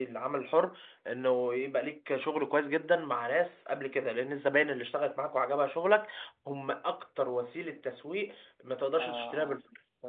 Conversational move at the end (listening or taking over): taking over